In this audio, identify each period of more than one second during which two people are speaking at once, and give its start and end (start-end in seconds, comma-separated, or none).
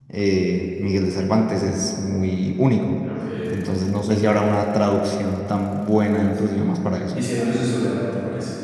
none